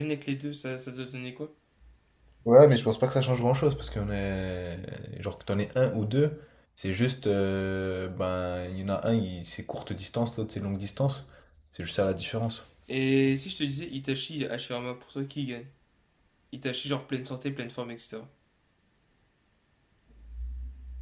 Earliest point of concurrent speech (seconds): none

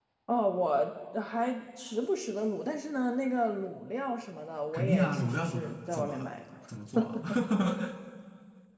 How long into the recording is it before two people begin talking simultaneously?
4.7 s

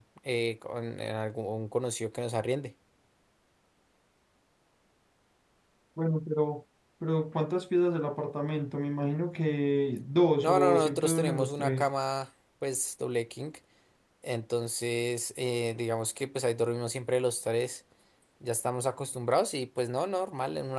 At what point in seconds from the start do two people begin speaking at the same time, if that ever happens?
10.4 s

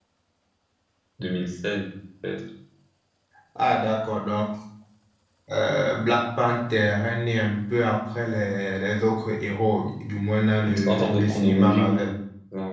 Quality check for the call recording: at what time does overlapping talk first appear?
10.7 s

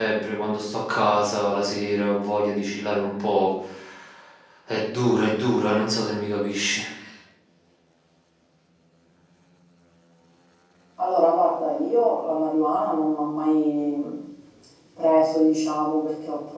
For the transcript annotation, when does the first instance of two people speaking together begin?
none

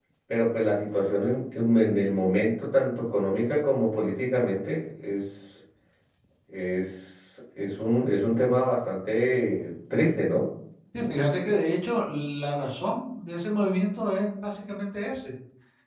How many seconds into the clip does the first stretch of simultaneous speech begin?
none

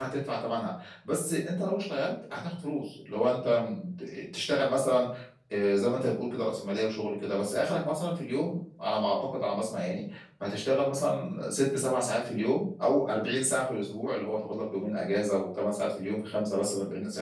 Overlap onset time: none

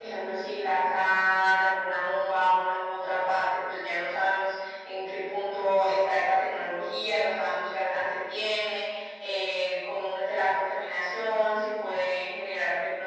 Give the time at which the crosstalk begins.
none

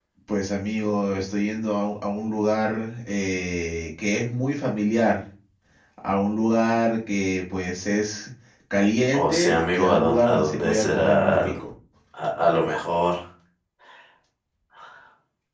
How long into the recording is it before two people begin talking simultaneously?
9.1 s

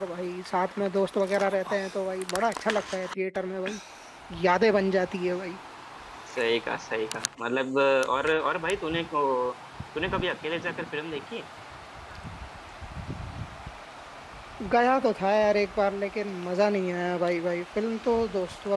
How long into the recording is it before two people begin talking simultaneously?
none

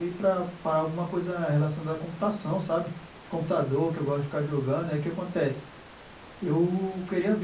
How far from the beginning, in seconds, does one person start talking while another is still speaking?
none

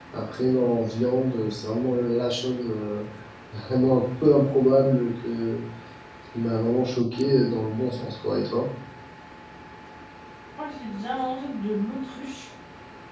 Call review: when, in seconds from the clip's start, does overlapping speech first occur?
none

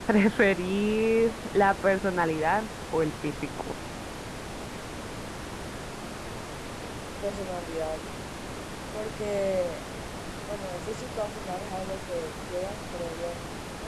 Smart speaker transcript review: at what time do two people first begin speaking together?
none

